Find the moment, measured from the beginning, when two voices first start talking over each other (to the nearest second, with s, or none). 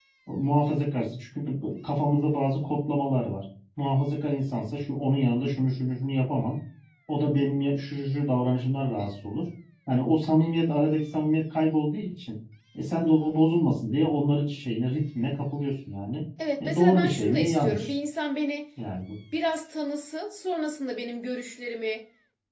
17 s